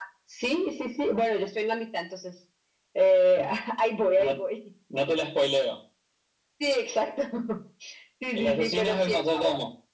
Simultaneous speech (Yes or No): Yes